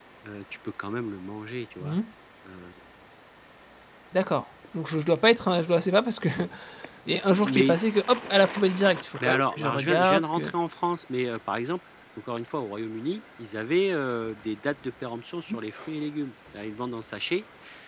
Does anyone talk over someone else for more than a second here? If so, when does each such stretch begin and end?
9.2-10.5

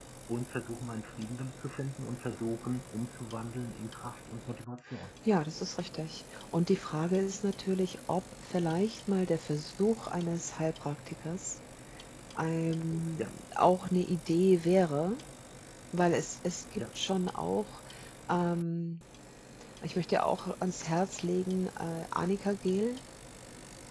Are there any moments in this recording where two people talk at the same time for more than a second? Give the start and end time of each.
none

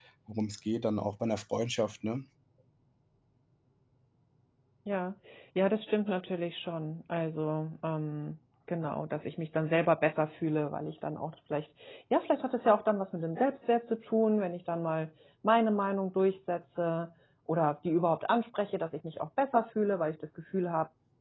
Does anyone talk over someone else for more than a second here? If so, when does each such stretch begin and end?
none

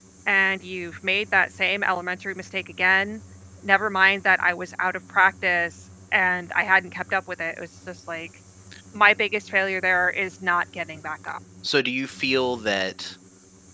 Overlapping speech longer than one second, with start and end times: none

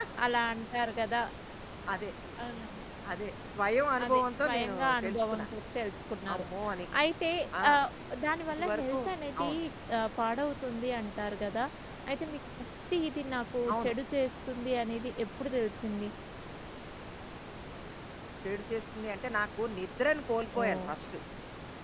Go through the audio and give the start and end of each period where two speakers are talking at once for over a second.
4.0-5.5

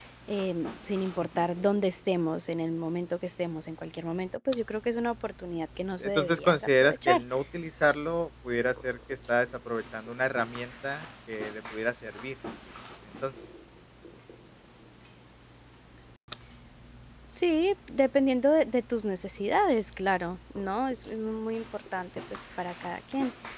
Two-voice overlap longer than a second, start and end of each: 6.0-7.2

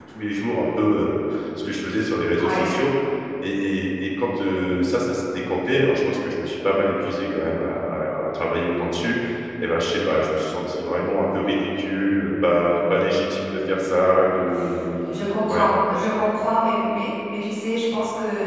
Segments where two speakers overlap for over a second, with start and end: none

